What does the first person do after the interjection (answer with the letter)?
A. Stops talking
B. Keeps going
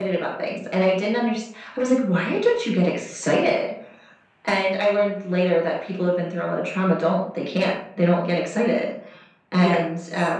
B